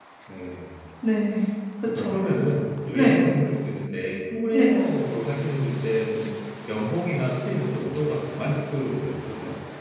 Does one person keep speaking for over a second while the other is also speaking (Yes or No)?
No